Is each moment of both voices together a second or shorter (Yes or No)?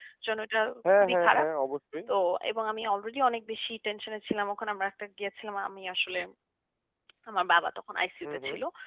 Yes